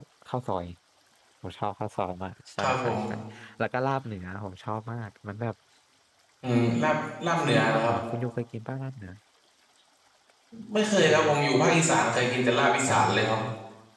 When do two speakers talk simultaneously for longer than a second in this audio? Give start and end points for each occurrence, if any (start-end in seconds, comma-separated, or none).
none